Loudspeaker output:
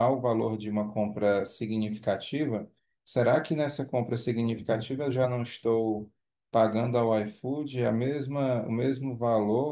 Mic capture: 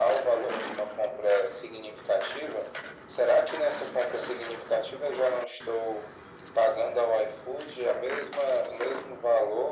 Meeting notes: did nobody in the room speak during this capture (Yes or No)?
Yes